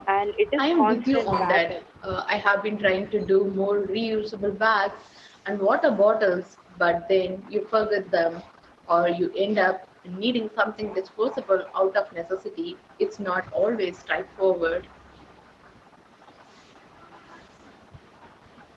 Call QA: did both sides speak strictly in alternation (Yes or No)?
No